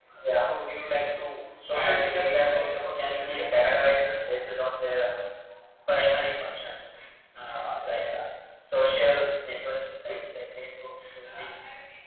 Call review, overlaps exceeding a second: present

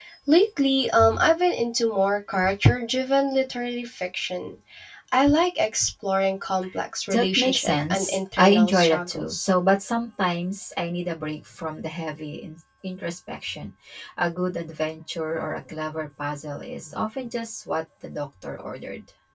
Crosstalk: present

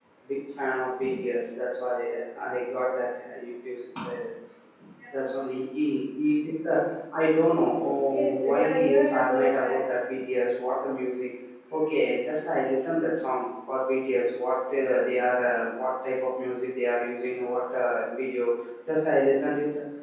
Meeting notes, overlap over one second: present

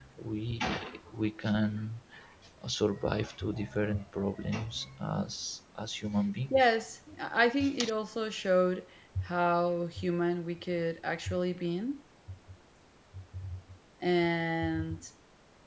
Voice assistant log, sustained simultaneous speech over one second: none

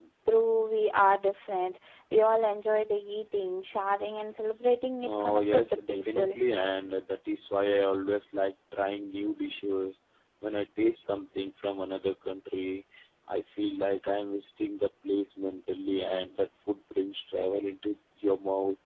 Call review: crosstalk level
present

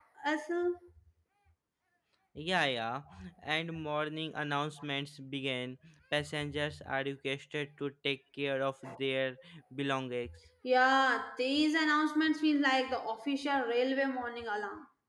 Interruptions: none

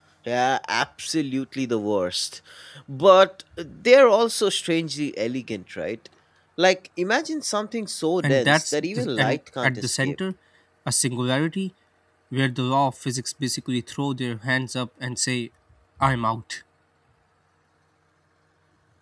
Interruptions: present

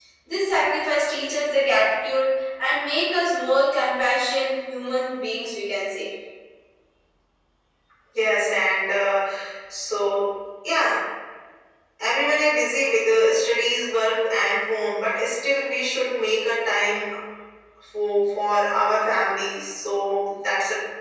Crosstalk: none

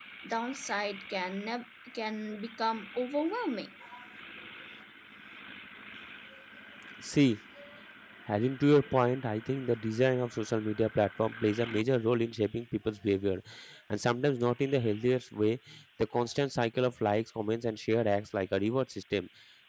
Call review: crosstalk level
none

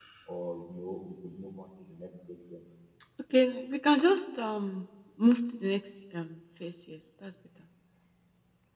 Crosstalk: none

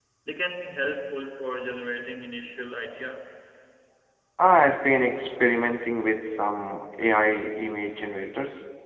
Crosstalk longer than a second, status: none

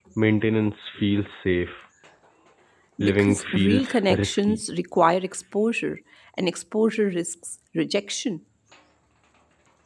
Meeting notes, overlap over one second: present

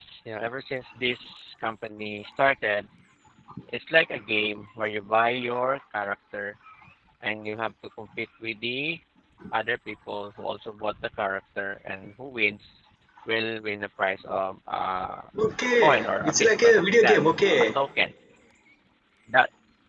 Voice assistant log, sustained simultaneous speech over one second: present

